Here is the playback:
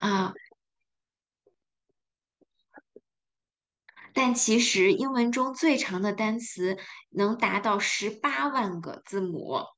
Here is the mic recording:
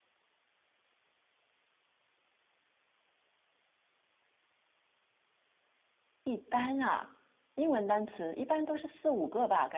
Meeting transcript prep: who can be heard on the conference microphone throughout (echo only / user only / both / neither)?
user only